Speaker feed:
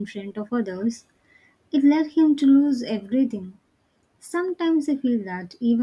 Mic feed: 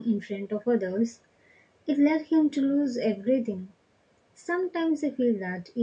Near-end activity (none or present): none